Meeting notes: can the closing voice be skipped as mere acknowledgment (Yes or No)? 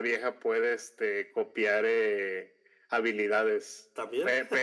Yes